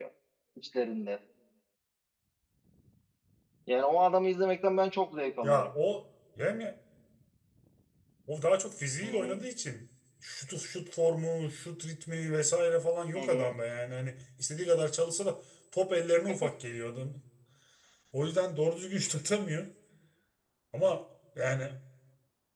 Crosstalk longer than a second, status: none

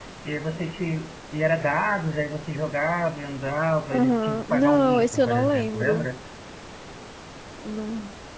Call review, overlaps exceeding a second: present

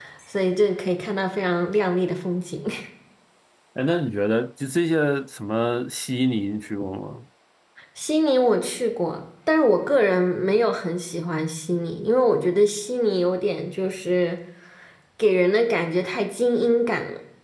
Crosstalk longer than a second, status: none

